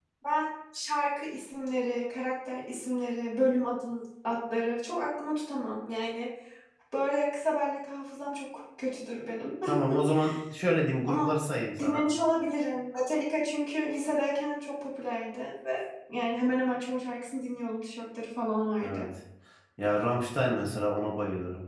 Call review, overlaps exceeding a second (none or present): none